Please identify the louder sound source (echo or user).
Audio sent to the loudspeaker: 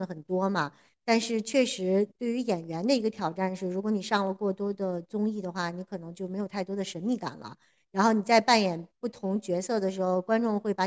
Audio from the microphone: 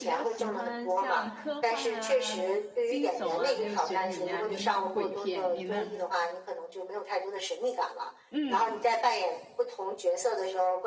echo